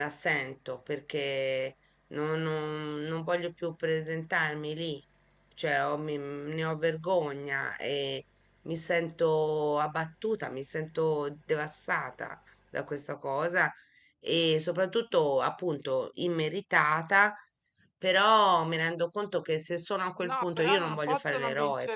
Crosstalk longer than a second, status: present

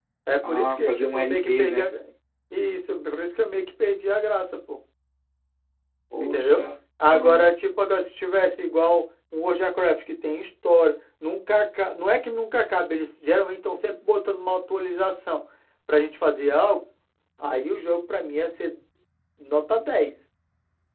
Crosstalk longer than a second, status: present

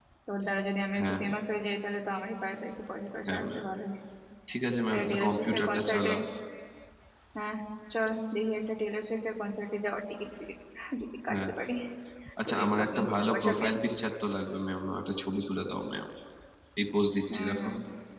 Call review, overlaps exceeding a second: present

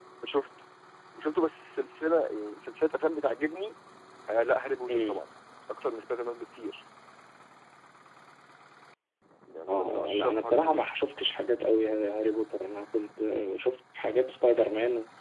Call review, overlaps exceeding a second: present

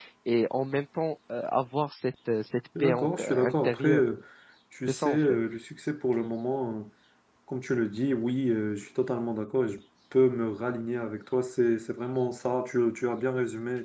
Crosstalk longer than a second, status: present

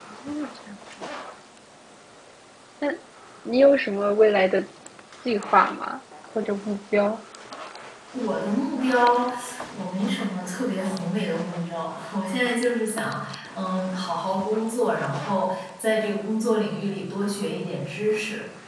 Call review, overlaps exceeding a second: none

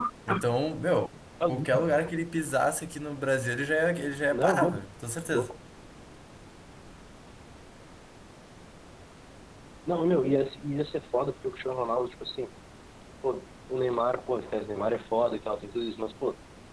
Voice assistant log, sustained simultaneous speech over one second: none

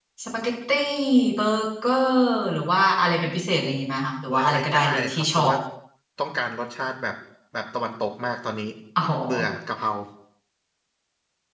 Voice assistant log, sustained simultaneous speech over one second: present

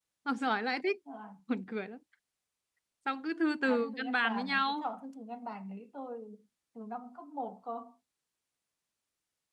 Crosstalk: present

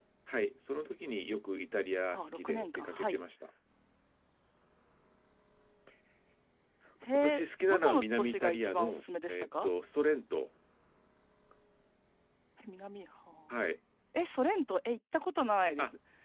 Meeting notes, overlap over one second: present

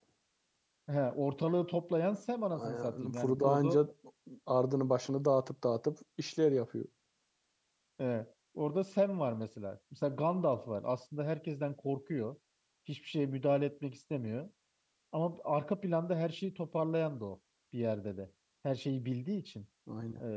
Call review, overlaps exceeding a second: present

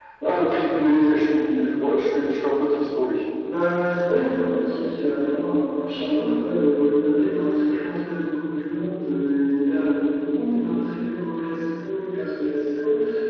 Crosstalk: none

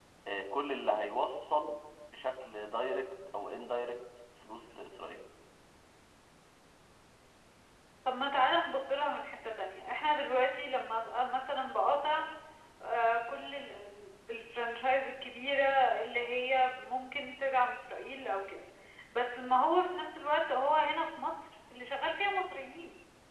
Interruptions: none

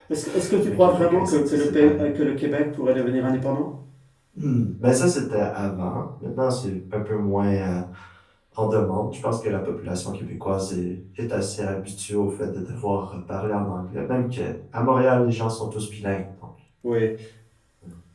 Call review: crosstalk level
present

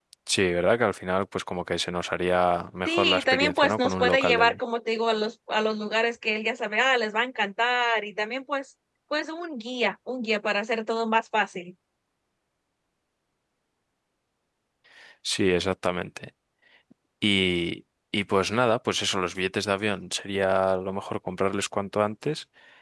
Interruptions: present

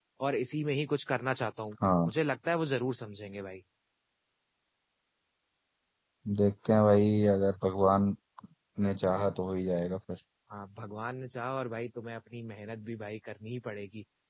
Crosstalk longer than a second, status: none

